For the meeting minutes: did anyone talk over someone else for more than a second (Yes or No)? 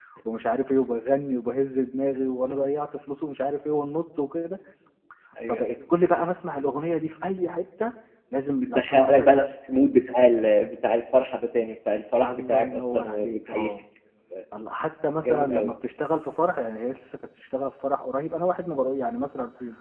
Yes